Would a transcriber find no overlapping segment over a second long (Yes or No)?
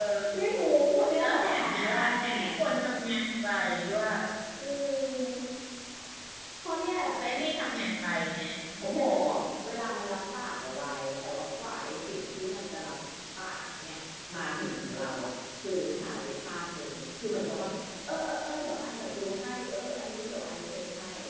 No